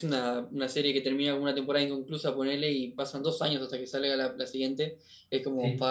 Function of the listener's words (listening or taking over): listening